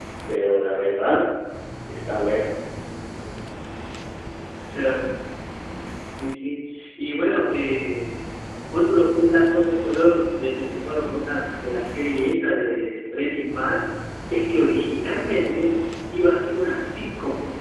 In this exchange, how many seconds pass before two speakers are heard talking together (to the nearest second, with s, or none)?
none